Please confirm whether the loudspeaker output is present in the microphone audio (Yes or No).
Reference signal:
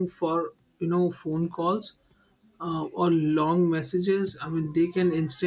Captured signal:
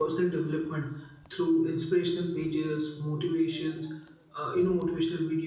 No